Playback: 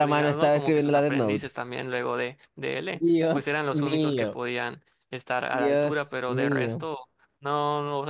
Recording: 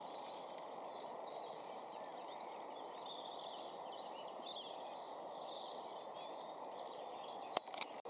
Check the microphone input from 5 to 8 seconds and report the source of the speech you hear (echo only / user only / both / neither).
neither